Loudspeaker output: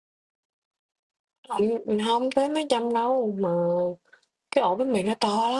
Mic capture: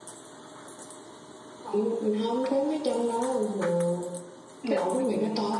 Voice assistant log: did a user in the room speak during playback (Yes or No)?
Yes